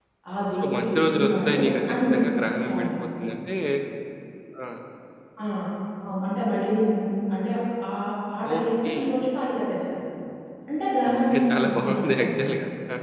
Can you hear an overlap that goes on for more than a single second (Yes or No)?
Yes